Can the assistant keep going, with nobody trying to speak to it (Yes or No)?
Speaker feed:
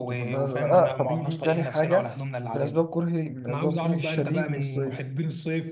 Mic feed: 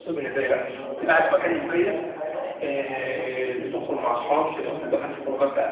No